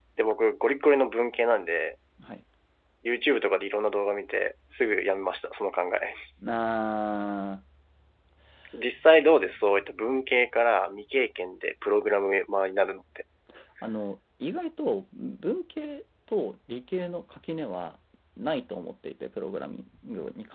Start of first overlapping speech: none

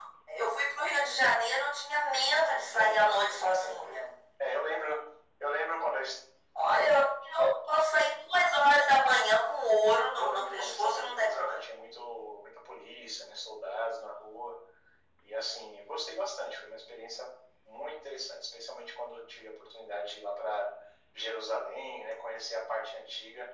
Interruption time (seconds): 2.7 s

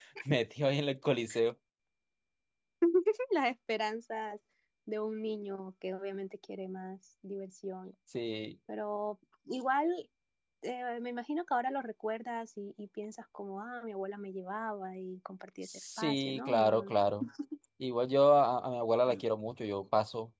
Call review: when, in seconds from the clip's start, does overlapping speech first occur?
15.7 s

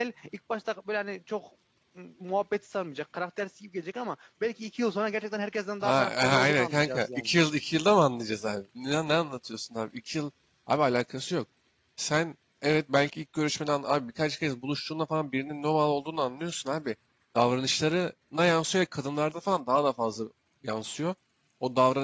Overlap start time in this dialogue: 5.8 s

